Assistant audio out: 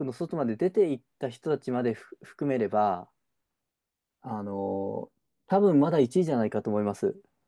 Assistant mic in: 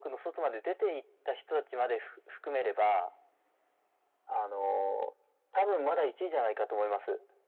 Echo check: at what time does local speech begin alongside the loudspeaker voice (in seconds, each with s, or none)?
none